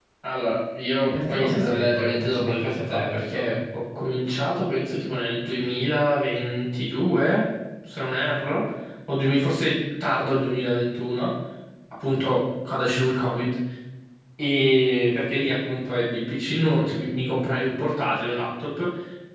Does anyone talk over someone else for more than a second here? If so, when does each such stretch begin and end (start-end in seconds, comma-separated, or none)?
1.1-3.6